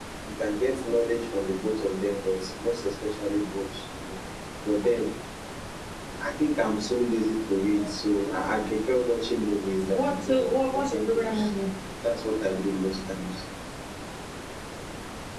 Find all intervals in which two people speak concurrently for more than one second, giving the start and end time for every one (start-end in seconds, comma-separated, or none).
9.9-11.5